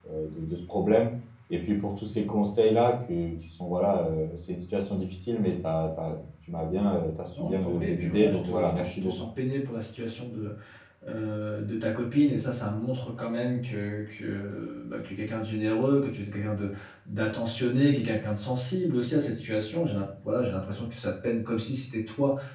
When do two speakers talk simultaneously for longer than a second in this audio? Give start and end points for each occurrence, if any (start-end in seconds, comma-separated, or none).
7.4-9.1